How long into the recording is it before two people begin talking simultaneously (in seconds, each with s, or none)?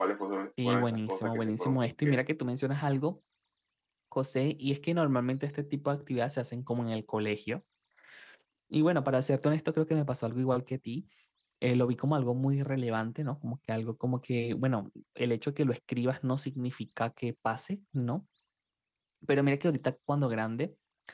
0.7 s